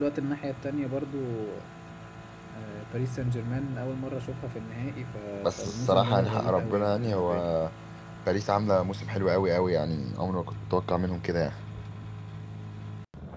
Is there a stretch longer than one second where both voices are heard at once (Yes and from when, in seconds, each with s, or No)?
Yes, from 5.6 s